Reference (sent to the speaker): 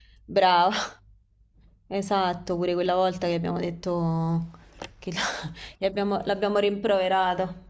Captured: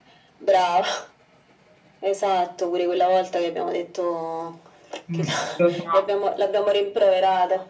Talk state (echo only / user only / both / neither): both